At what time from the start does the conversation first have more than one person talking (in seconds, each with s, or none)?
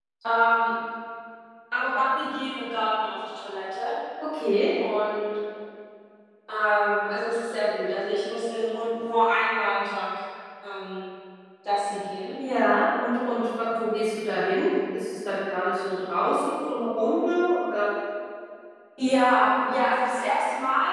none